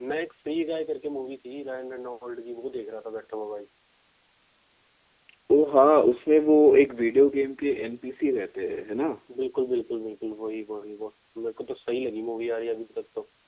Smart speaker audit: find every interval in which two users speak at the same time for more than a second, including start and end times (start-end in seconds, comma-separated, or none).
none